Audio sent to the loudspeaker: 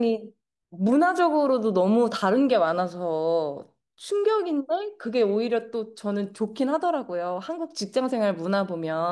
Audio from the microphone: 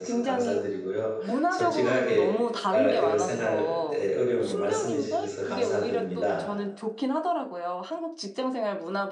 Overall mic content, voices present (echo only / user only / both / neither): both